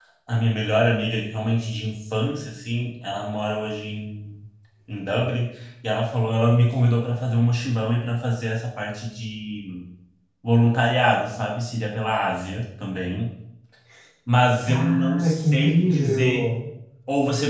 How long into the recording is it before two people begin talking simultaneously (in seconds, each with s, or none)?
14.6 s